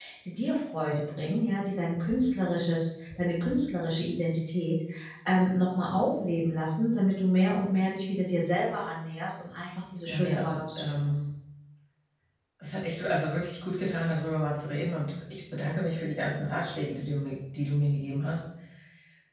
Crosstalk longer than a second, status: present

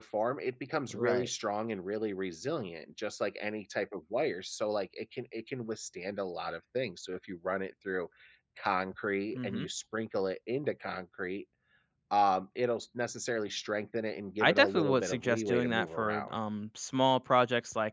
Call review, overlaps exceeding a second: present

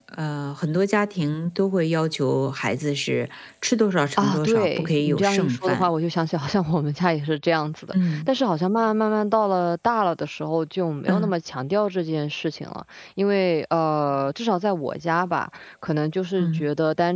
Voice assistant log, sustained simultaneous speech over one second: present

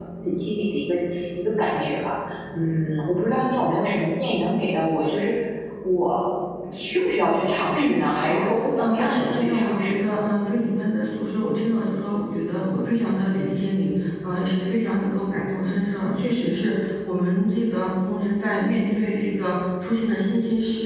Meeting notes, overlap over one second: present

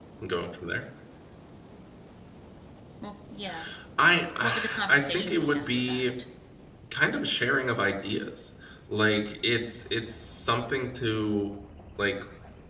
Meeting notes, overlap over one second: present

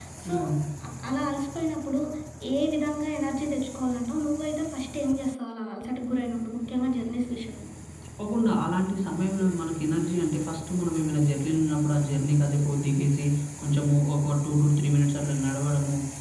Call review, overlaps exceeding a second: none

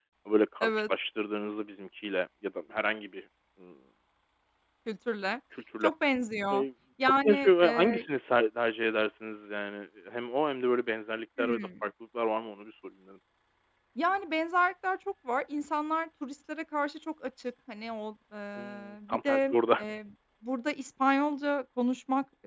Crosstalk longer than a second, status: present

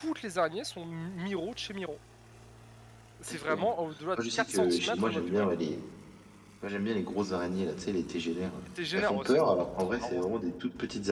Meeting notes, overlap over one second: present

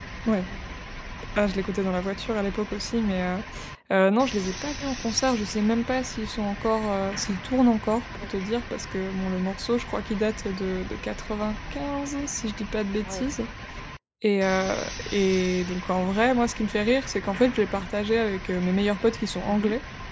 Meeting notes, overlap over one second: none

